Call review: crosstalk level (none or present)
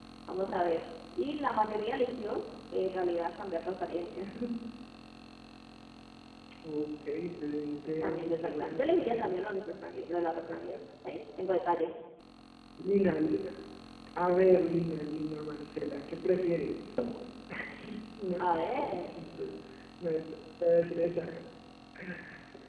present